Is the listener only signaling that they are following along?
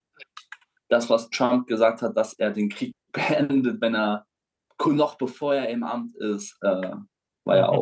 No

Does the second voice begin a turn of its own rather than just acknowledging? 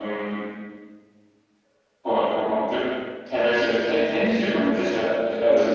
Yes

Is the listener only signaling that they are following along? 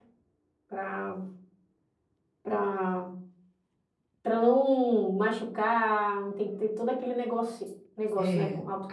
No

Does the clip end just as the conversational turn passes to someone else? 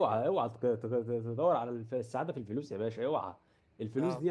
No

